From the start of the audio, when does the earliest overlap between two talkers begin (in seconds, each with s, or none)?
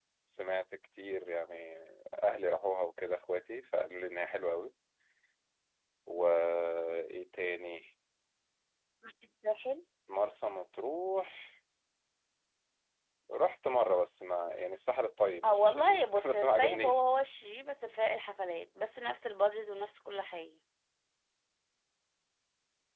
15.4 s